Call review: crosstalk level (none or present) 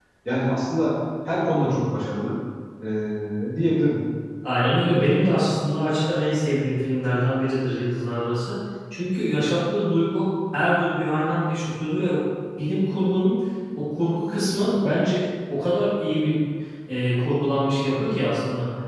none